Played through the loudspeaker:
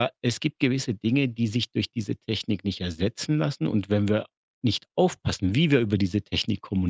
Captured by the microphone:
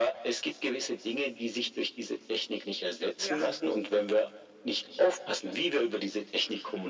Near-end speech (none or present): present